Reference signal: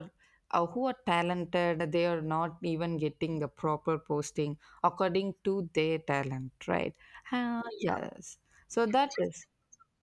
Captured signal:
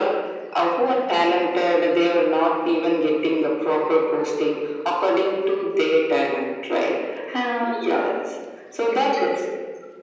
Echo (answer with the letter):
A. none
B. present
B